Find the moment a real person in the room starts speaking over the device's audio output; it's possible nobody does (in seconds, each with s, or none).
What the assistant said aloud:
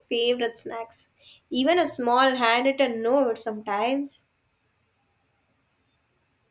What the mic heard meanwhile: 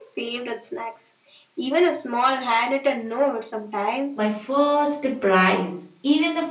4.1 s